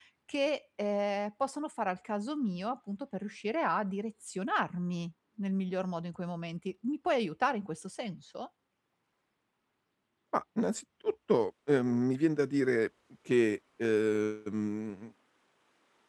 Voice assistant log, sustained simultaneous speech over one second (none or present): none